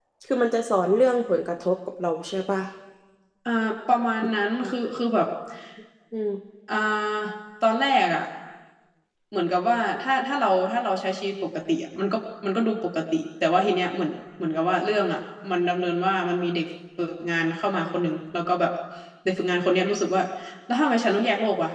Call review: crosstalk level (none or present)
none